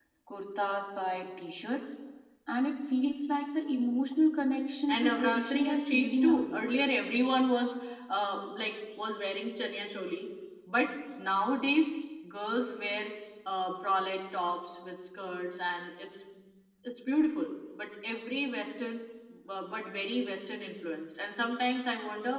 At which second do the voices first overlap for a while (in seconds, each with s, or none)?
4.9 s